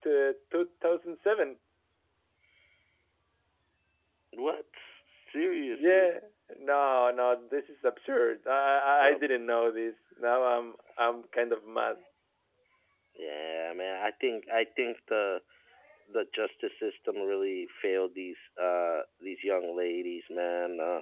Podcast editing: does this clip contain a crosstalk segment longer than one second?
No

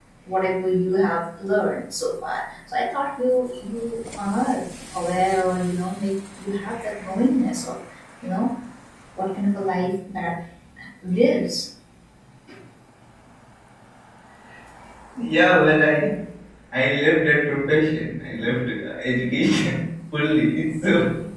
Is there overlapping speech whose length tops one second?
No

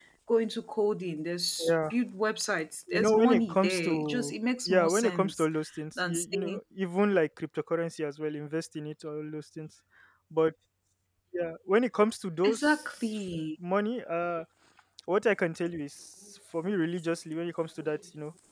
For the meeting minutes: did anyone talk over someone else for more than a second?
Yes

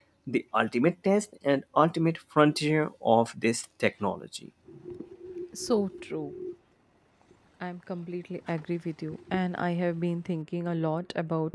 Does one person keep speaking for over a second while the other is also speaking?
No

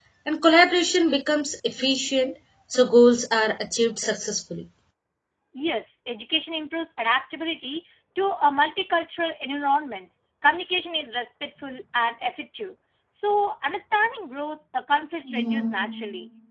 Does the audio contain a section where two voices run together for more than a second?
No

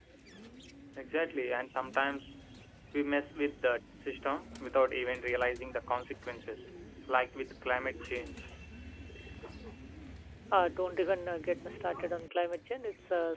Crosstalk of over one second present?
No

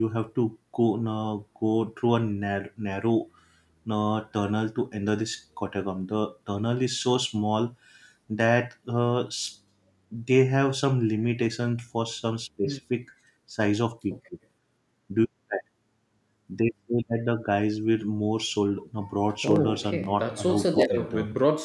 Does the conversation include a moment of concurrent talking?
Yes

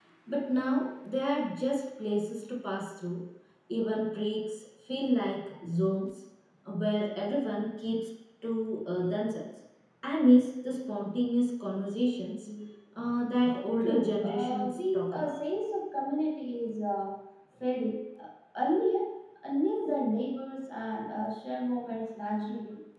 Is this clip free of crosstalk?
No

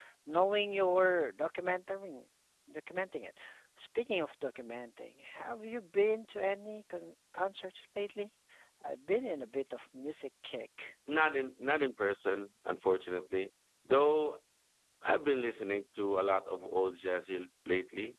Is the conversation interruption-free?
Yes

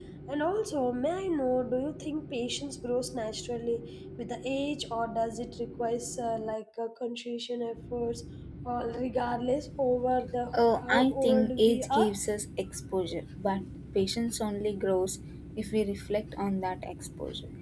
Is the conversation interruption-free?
No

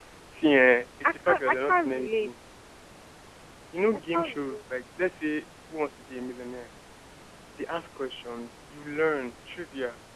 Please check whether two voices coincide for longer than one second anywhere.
Yes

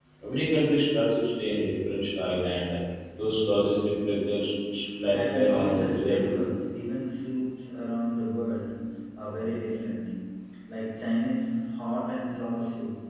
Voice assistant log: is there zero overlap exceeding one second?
No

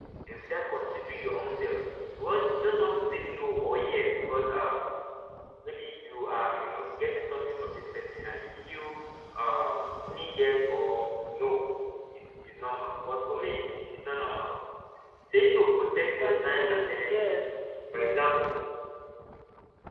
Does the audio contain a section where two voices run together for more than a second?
Yes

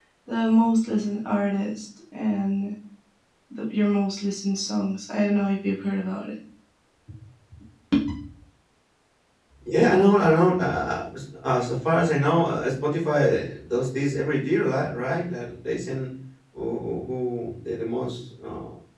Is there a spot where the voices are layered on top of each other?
No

